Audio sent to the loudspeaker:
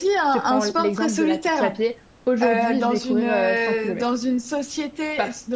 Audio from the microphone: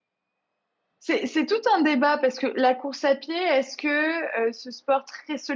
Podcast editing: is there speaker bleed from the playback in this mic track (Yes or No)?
No